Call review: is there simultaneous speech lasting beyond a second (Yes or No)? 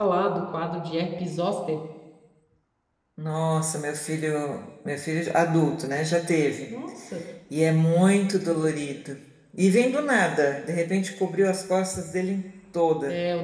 No